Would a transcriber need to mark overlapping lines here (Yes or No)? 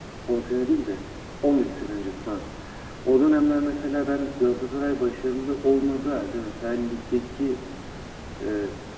No